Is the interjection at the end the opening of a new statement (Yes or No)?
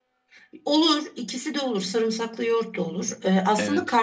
No